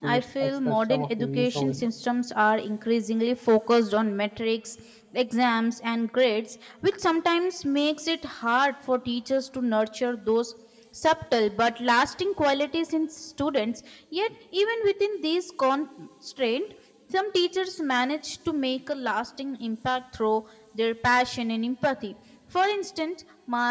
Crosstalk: present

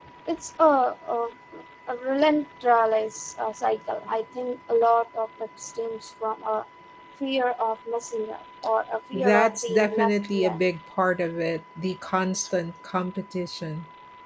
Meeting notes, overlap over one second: present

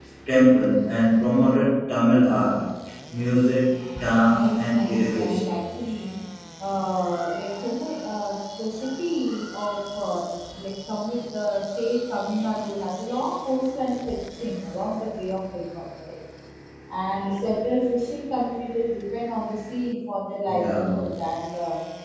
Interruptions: present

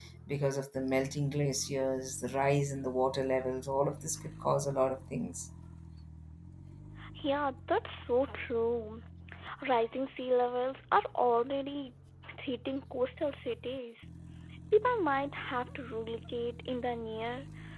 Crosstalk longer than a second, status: none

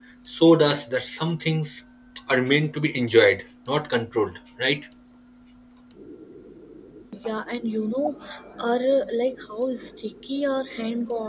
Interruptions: none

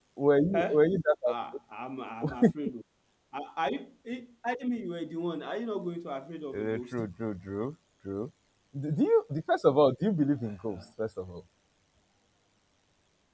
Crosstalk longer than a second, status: none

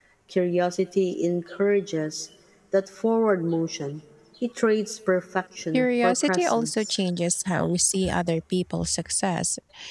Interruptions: present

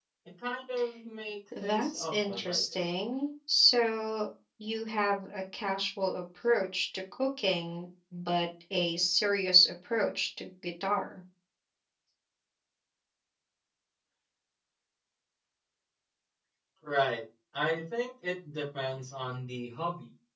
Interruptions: present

